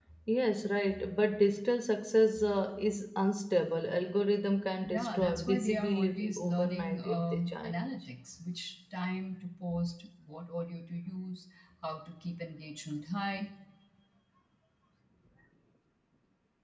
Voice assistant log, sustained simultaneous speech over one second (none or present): present